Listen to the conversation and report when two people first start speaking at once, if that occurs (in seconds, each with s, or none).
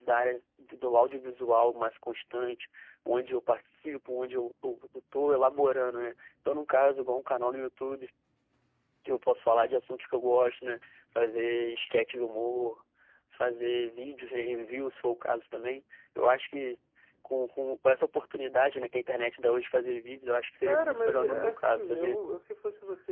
20.6 s